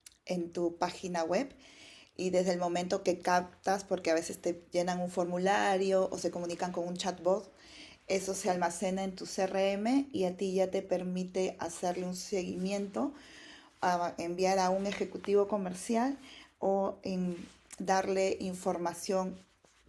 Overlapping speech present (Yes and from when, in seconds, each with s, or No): No